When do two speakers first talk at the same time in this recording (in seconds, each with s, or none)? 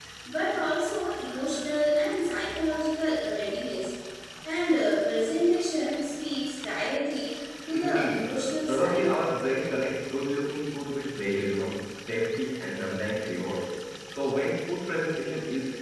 7.7 s